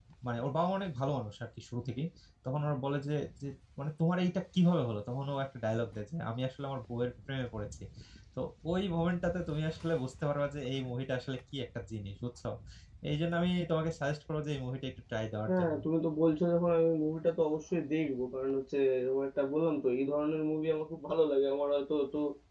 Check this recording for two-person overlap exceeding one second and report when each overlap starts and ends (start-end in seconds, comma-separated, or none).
none